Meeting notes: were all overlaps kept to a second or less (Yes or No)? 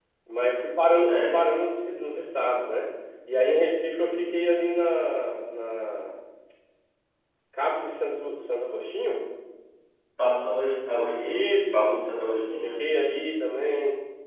Yes